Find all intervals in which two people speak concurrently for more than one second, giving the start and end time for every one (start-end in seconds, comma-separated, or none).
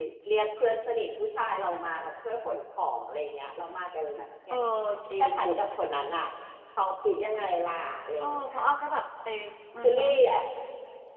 none